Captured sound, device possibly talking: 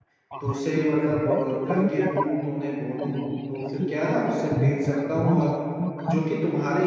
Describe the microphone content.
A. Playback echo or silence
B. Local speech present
B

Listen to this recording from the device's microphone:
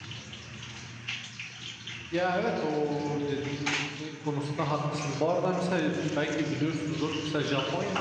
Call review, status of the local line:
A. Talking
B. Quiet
A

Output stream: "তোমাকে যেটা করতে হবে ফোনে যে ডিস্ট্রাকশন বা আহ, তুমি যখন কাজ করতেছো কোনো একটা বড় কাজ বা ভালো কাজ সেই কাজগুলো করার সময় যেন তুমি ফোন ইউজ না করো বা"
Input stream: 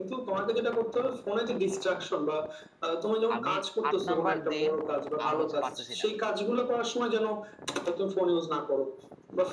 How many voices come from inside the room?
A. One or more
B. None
A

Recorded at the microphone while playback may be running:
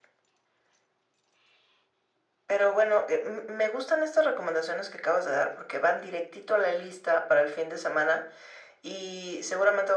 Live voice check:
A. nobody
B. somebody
A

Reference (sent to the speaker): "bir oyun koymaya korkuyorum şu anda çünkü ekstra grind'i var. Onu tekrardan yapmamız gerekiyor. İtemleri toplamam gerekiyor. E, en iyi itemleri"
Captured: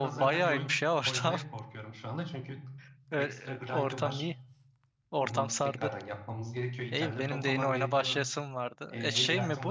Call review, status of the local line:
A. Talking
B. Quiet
A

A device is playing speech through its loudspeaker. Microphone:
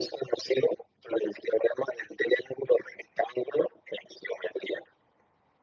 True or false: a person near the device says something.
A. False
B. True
A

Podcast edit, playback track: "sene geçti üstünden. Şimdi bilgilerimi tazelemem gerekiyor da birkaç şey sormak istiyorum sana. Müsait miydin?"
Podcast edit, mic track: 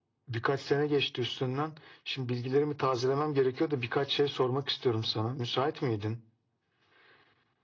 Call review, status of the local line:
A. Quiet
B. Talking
A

